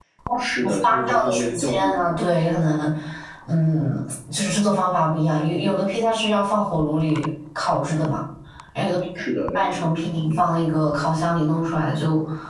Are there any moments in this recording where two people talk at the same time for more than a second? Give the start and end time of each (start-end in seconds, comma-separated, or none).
0.6-2.2